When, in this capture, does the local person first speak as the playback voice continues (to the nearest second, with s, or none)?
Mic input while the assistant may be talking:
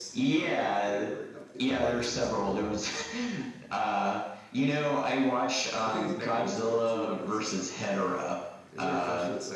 2 s